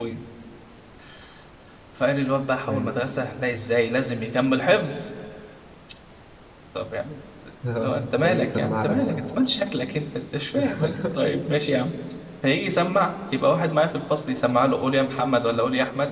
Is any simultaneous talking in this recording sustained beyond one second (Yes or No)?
Yes